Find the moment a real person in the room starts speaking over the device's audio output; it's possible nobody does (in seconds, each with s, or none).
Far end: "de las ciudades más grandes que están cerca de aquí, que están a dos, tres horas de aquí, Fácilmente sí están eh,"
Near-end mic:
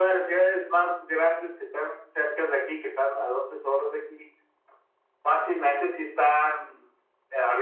none